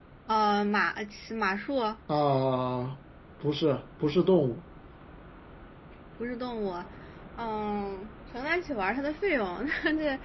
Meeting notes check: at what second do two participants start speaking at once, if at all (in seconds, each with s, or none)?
none